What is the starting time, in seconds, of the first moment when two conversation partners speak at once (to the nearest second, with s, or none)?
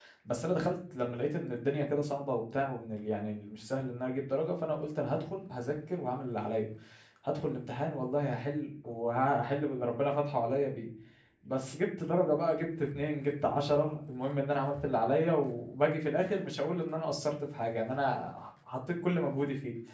none